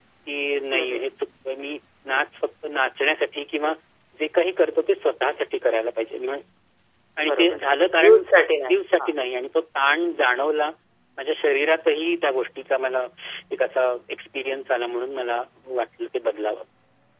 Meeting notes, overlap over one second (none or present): none